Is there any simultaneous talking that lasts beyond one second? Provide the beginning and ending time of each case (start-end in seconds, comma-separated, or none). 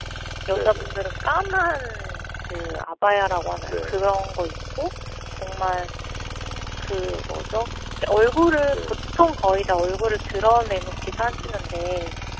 none